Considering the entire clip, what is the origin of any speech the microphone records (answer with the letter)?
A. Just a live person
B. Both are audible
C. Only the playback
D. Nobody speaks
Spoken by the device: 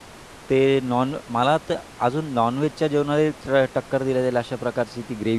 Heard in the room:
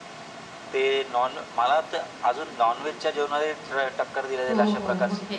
B